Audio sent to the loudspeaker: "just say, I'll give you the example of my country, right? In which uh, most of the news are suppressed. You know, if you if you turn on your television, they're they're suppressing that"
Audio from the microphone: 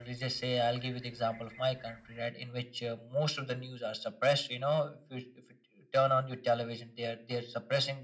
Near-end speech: none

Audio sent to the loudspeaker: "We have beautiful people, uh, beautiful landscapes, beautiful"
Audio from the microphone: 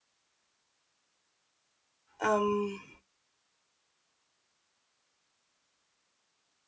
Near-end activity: present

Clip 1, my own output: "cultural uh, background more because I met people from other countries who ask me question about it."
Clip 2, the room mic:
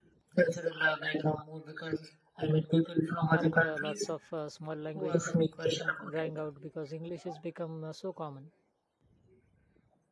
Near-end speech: present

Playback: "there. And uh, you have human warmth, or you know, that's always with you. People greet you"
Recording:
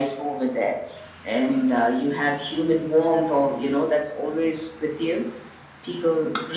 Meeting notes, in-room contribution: none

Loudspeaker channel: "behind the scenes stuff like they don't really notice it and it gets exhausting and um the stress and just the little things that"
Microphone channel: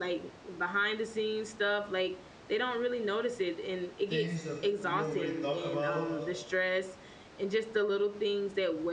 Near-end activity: present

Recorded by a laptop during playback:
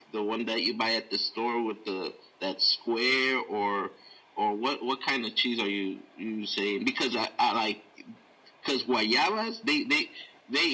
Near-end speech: none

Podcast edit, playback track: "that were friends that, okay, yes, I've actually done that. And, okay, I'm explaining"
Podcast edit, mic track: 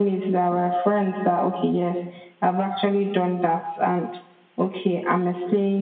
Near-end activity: none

